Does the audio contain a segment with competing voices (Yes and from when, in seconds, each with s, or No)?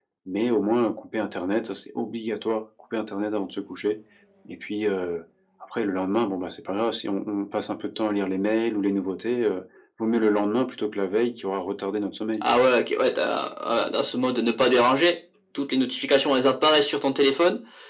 No